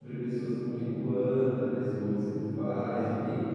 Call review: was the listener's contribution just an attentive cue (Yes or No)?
Yes